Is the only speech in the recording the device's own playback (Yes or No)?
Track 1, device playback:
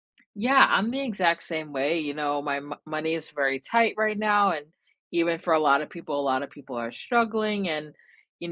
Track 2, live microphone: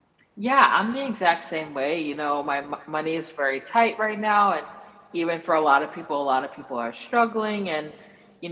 Yes